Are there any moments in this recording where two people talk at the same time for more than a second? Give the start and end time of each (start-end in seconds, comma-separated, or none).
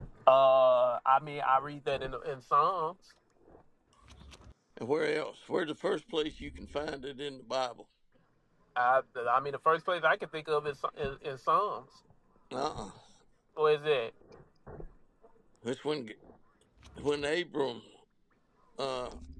none